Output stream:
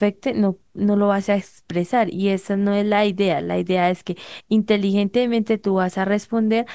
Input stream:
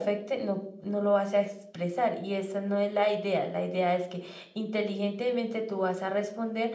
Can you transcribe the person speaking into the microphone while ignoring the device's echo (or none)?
none